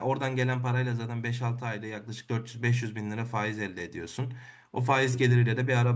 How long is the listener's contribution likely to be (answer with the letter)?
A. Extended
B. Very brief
B